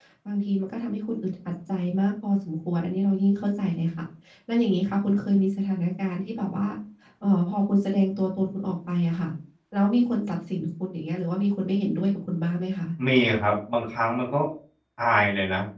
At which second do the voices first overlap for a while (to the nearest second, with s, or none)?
none